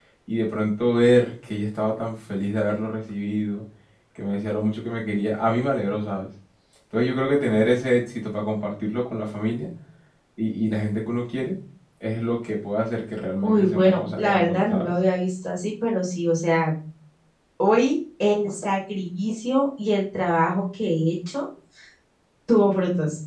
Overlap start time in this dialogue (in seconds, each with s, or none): 13.4 s